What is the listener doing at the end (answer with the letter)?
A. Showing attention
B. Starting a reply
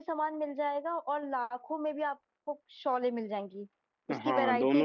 B